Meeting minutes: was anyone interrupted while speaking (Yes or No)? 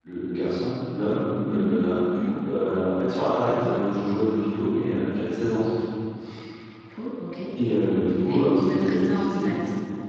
Yes